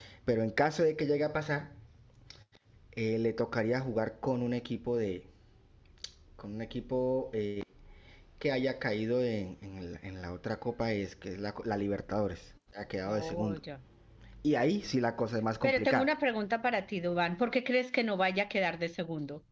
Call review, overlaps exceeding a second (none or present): none